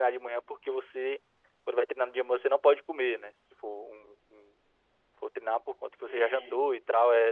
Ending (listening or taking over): listening